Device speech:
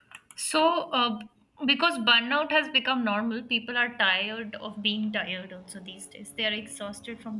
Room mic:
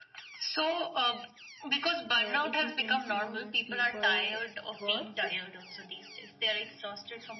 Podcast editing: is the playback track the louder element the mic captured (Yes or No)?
Yes